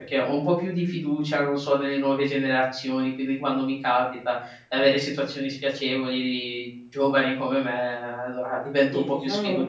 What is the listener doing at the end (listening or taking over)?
taking over